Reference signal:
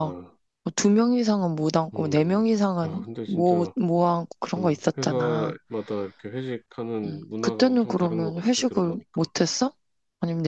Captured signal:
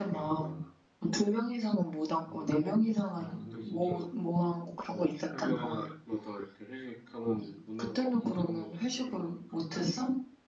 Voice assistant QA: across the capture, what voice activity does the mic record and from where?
echo only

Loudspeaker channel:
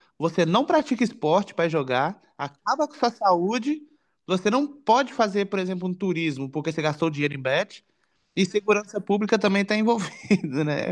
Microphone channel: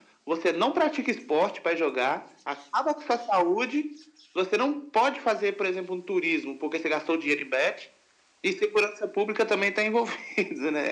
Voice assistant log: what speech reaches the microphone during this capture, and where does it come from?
echo only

